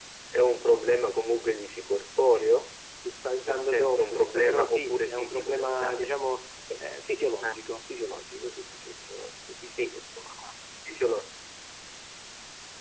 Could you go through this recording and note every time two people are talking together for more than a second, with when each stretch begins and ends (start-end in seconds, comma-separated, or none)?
3.5-6.1